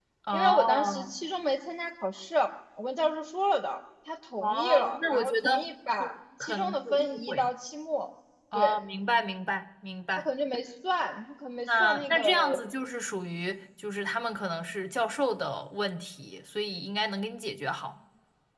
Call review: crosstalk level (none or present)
present